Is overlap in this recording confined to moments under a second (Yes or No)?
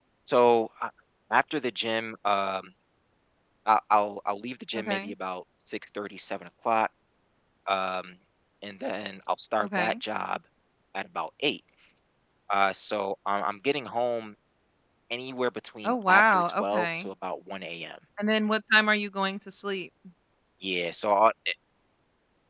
No